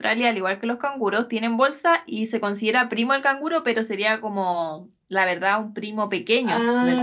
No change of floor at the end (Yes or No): No